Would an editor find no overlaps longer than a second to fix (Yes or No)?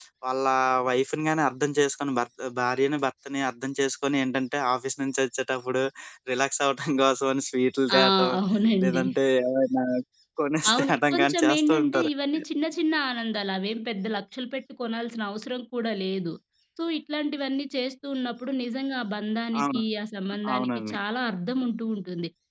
No